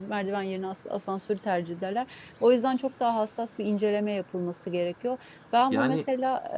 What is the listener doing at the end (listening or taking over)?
listening